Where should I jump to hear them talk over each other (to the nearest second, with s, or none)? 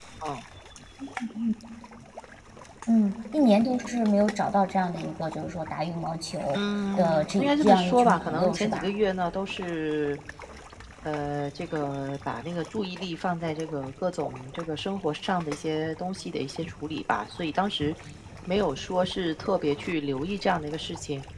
7 s